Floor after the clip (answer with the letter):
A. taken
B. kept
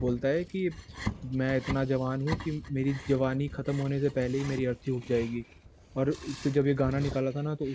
B